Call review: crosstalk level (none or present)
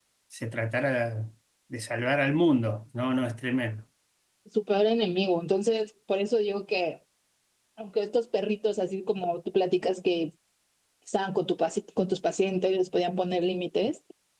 none